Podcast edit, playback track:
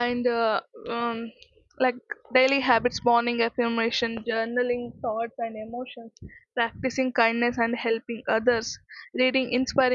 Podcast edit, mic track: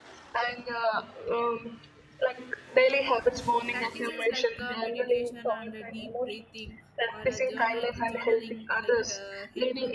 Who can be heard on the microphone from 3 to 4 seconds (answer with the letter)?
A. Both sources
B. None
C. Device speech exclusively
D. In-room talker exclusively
A